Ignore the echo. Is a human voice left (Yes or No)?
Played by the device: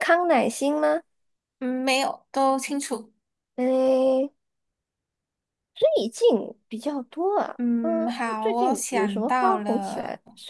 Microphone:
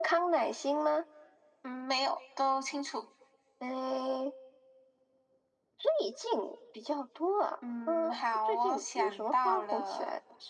No